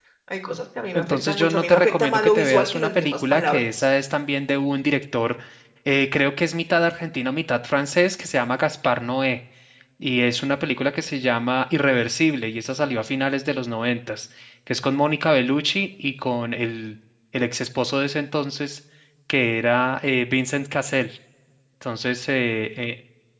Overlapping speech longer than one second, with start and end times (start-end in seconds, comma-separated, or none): 0.9-3.8